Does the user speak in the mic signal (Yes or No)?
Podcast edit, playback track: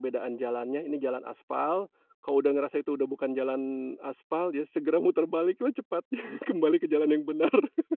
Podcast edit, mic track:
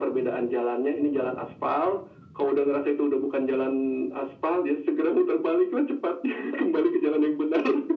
No